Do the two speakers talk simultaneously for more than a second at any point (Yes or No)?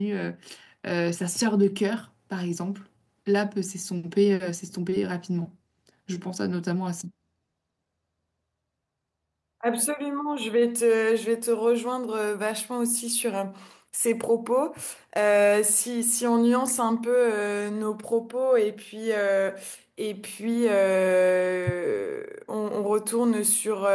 No